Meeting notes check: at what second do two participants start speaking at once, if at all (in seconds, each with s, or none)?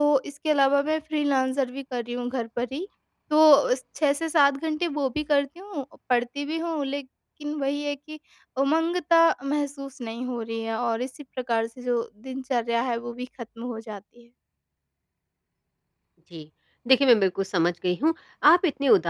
none